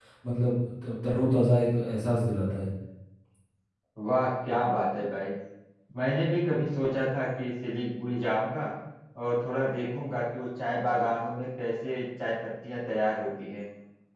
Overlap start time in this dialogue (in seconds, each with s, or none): none